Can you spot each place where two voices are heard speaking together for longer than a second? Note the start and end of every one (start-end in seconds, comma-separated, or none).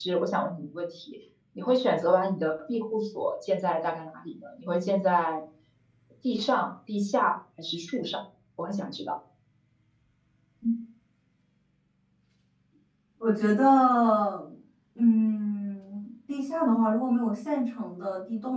none